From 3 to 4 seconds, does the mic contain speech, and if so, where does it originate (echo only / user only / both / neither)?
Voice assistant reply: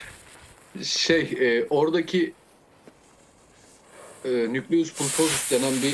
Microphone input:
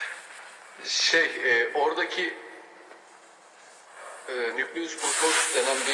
neither